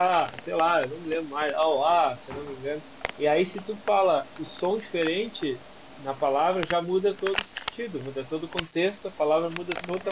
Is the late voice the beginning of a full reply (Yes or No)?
No